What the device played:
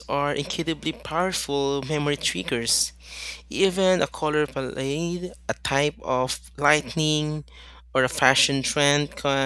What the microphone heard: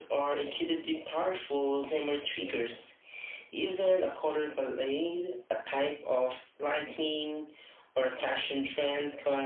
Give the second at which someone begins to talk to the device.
none

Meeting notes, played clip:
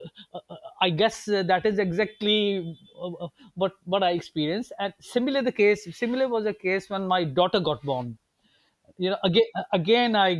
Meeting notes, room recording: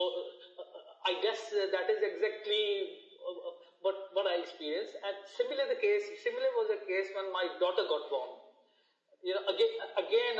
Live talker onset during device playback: none

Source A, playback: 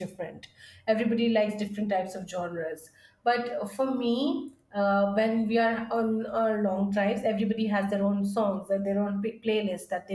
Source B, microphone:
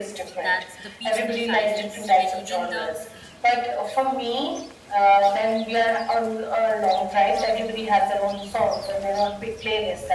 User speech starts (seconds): 0.3 s

